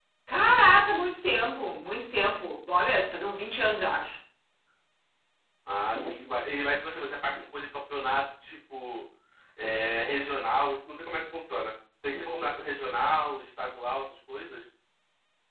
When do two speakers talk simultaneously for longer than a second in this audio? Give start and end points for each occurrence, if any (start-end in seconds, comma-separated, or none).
none